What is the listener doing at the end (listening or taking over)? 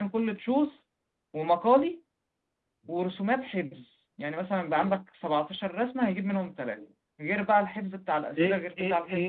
taking over